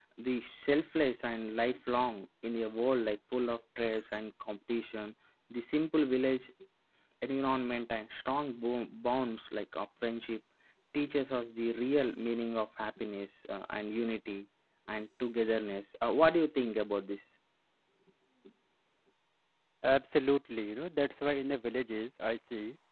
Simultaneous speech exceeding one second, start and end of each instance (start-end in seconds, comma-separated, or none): none